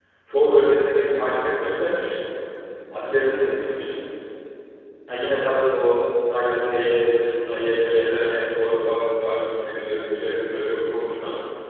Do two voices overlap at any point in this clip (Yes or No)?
No